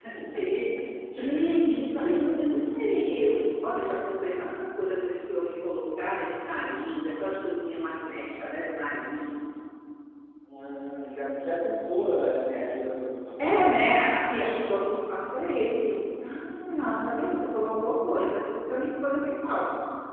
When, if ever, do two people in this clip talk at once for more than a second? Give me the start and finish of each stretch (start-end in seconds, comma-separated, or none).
none